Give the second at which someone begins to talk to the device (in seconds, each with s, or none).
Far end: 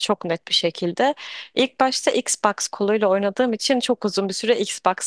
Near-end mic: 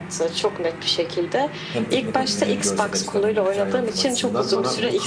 1.7 s